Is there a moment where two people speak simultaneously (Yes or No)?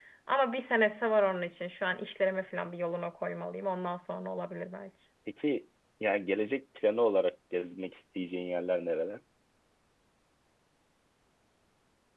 No